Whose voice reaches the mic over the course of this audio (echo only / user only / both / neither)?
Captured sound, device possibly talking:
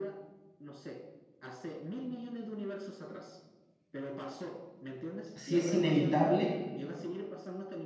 both